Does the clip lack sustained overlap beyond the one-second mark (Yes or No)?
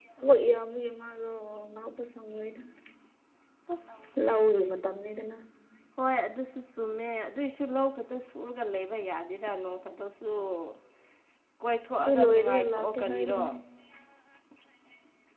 No